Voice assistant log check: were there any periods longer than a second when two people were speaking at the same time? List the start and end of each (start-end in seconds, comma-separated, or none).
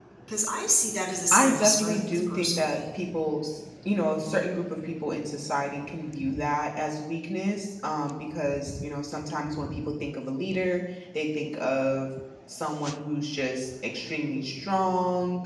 1.3-2.8